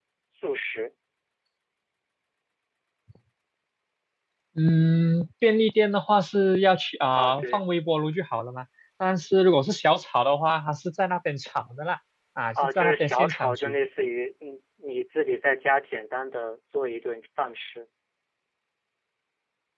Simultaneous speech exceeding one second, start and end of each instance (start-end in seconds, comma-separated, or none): 12.6-13.8